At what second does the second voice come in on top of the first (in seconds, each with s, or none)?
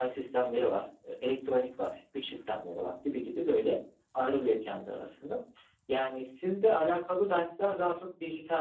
none